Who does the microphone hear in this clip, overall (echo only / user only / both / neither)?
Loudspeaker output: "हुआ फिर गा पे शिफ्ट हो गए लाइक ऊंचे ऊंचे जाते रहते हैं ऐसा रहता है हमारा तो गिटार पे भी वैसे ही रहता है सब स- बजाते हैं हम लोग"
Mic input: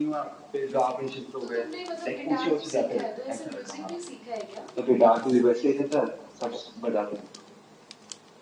both